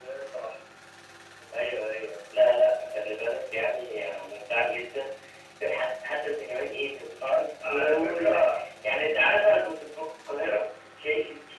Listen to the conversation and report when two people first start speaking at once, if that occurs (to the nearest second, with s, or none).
7 s